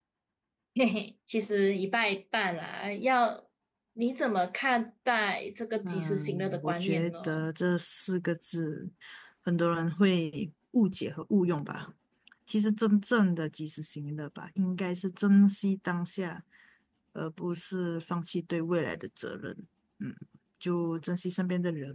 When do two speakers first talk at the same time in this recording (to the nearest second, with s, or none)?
6 s